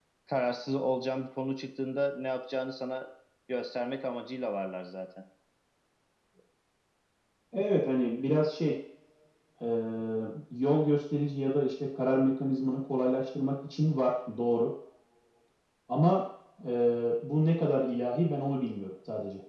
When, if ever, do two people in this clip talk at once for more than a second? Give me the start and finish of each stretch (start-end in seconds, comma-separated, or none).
none